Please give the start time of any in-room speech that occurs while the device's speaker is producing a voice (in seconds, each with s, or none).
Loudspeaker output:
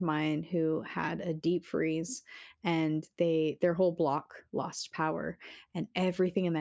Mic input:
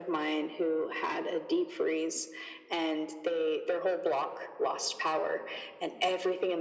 none